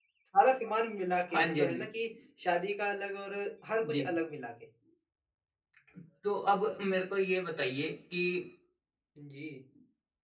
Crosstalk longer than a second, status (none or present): none